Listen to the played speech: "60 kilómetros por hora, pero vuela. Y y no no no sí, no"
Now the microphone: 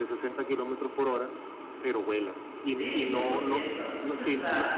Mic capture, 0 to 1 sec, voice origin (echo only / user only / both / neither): echo only